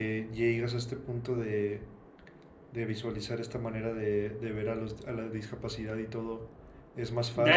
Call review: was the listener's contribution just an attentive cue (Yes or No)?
No